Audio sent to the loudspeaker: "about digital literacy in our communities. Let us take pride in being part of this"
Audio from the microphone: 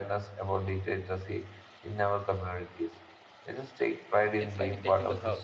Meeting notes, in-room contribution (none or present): present